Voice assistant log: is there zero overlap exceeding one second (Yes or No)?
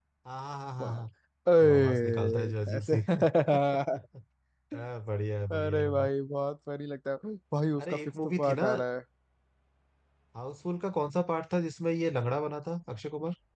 No